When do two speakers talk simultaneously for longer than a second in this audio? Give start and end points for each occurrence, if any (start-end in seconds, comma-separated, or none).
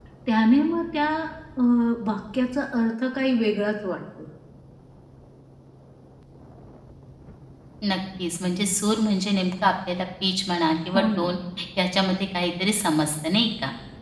none